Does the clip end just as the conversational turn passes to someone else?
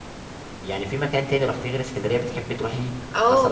Yes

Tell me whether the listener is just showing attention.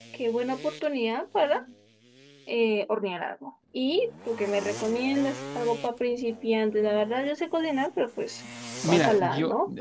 No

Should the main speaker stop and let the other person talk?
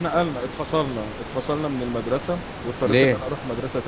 No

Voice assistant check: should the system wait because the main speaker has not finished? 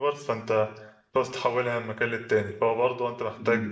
Yes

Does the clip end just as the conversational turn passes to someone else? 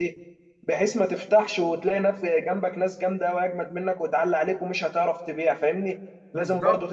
No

